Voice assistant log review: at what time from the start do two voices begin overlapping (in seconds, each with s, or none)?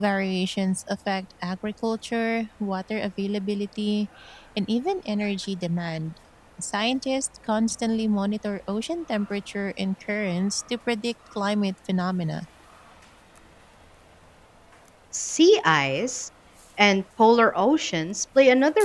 none